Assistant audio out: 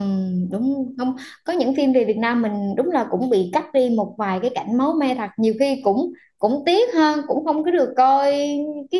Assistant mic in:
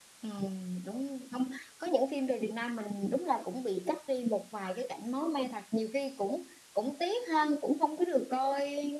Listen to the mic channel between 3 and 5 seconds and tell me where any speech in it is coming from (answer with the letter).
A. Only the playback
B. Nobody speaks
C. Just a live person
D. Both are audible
A